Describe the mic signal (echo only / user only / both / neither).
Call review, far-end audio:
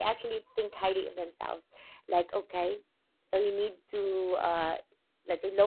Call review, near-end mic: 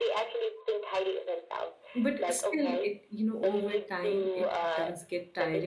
both